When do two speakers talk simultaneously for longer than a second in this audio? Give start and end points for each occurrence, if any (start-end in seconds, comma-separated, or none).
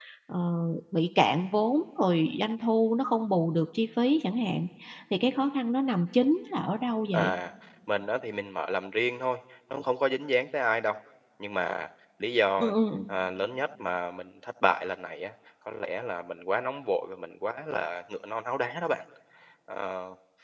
none